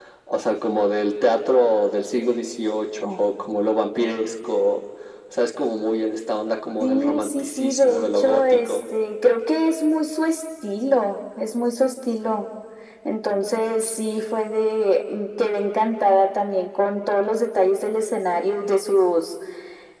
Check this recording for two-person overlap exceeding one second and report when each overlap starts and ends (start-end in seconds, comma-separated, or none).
6.8-8.9